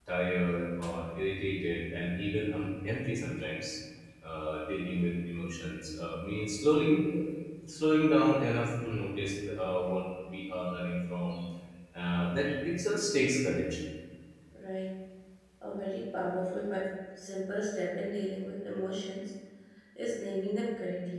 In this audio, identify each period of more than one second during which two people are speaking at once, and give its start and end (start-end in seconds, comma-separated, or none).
none